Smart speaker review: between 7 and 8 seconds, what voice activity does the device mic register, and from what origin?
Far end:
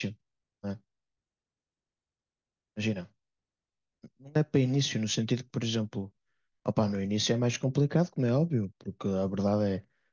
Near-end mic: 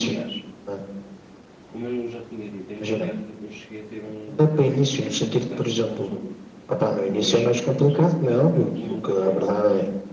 both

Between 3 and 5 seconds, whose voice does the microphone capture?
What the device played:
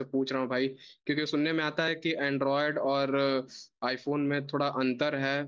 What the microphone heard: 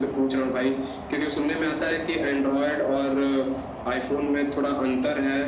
echo only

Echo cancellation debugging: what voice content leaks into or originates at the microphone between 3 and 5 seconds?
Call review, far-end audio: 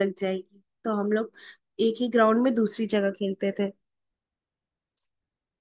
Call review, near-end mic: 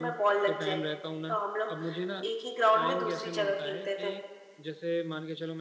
both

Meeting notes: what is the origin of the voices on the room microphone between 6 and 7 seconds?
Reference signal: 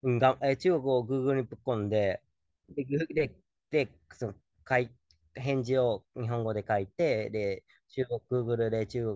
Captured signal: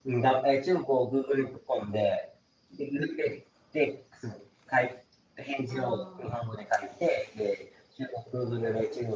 both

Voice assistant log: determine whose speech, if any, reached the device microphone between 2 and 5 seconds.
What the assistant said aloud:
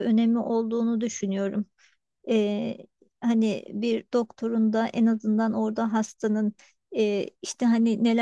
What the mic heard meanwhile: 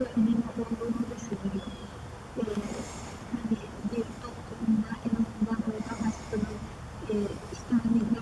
echo only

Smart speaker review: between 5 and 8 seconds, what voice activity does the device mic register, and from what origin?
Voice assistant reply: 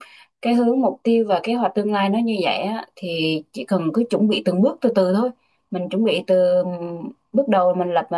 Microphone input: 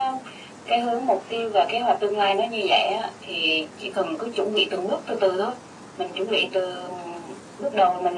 echo only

